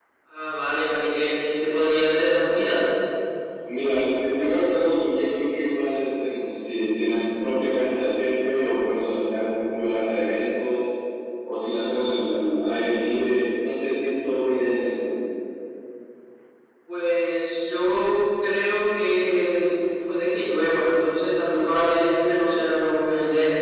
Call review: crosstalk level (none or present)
none